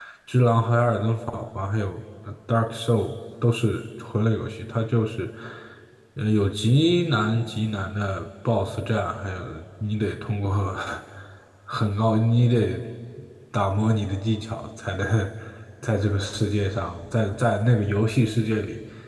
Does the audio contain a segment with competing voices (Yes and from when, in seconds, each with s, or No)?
No